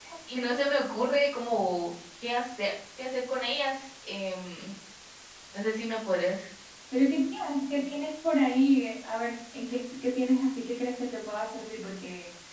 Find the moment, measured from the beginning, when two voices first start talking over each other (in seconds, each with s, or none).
none